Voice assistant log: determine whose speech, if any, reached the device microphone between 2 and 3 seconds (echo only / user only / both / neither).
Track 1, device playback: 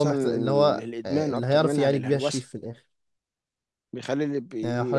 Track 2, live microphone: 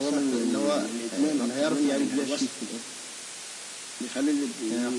echo only